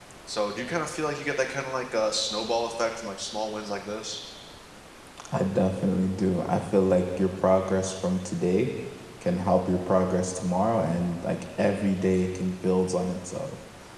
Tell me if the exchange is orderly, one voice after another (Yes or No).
Yes